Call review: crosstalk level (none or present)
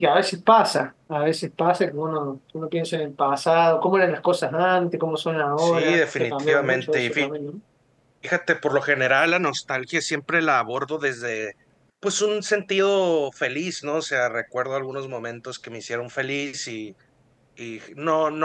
present